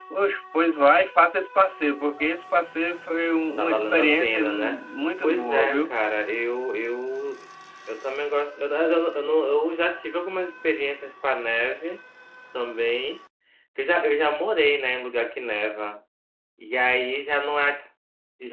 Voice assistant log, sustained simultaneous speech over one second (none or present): present